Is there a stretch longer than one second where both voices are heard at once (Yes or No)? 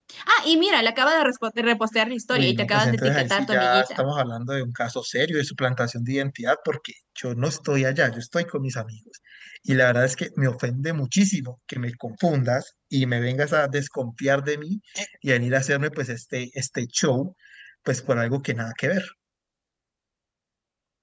Yes